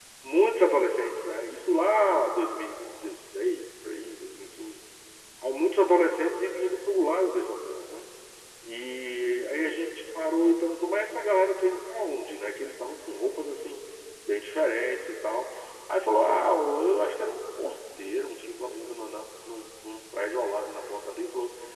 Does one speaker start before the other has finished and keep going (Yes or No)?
No